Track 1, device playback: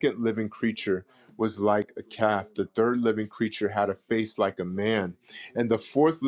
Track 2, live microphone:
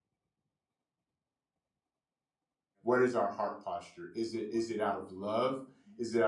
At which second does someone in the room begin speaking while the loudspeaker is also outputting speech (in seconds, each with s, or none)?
2.9 s